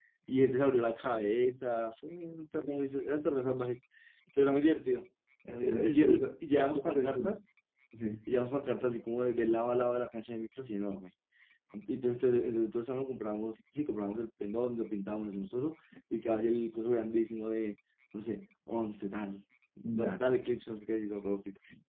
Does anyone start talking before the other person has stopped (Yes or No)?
Yes